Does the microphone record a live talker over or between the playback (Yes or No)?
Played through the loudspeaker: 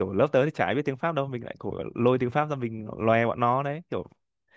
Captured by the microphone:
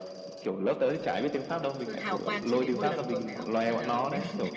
Yes